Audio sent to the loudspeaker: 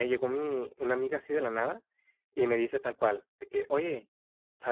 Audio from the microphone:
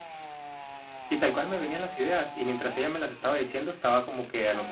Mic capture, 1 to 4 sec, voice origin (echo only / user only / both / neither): user only